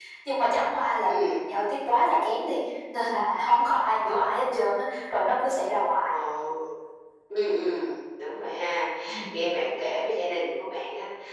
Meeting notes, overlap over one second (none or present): none